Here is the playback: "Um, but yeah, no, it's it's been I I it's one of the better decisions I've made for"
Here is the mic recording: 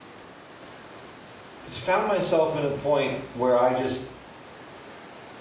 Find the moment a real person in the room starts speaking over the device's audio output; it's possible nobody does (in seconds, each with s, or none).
1.7 s